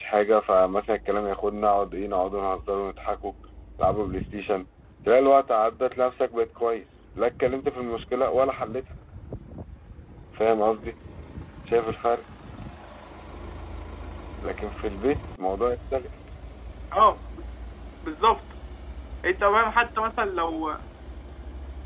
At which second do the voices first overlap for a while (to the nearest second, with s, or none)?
none